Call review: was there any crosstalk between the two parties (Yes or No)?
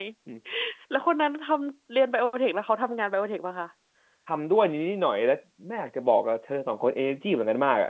No